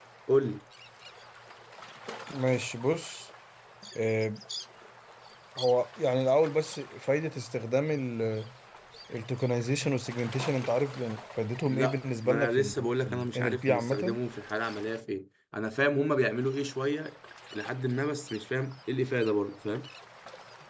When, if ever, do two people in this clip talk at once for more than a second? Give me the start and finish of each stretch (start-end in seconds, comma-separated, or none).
11.7-14.2